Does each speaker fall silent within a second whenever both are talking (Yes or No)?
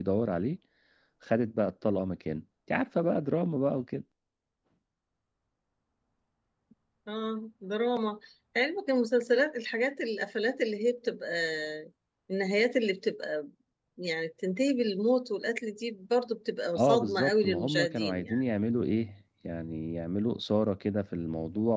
No